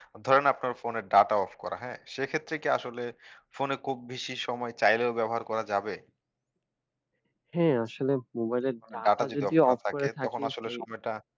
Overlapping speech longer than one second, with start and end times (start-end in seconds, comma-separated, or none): 8.9-10.8